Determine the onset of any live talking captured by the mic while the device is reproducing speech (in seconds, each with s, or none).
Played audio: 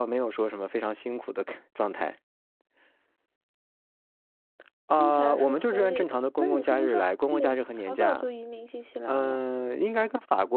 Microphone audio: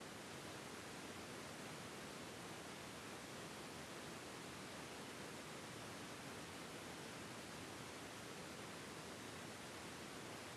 none